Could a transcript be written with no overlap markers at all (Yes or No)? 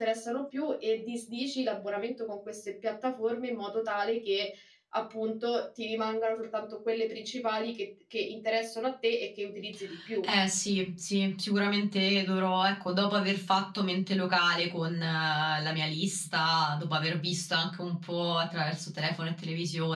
Yes